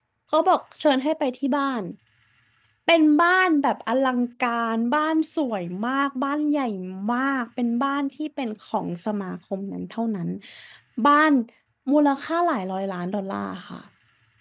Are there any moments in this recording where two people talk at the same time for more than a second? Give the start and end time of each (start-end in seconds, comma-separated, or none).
none